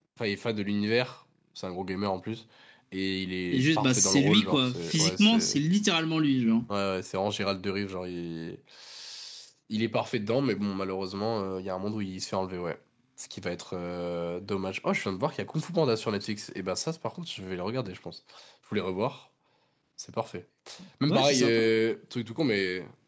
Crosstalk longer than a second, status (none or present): present